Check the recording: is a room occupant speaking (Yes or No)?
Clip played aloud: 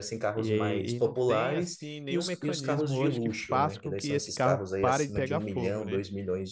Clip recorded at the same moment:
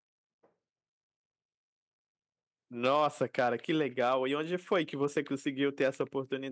Yes